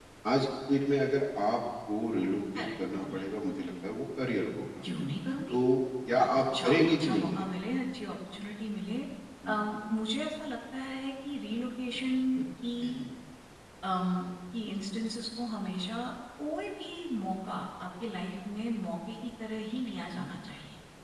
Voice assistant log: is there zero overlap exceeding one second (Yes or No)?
No